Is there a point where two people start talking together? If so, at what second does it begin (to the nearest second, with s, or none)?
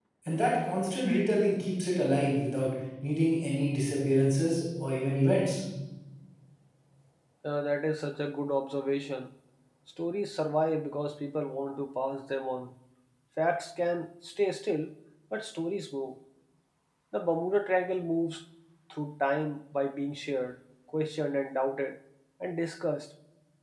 none